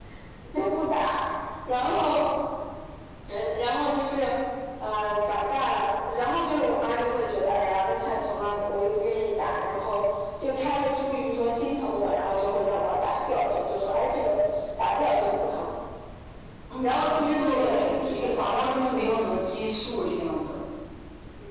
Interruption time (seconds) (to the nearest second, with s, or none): 17 s